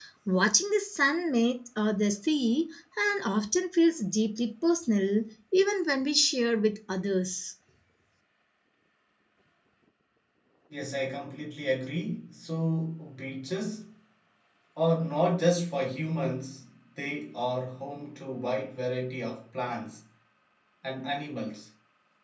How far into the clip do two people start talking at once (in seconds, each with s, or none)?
none